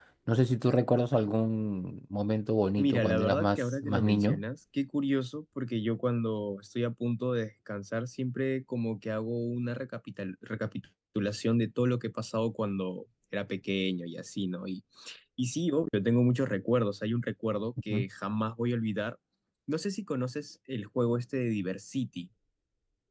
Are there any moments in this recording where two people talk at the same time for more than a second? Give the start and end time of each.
2.8-4.4

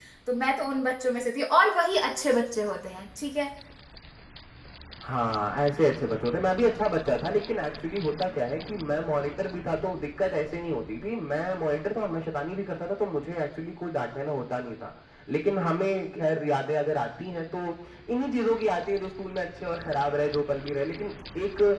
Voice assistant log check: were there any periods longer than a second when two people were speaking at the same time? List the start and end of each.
none

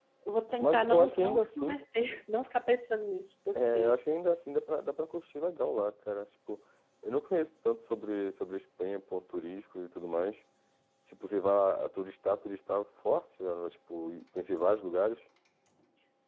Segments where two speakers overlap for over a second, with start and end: 0.6-1.8

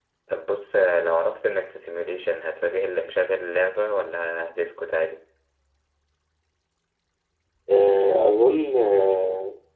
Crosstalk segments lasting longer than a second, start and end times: none

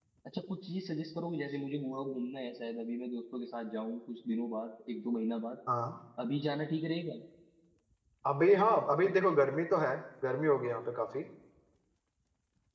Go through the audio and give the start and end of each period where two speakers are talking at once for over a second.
none

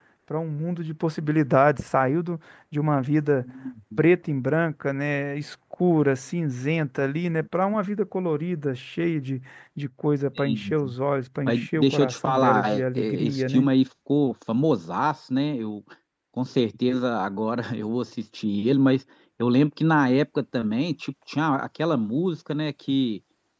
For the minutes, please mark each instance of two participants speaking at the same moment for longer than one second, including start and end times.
11.5-13.7

